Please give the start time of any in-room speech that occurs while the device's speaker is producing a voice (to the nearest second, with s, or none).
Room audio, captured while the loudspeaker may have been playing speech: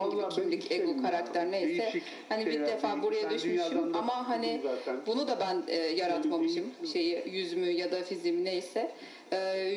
none